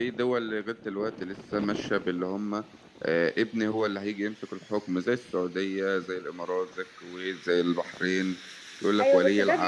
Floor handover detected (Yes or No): Yes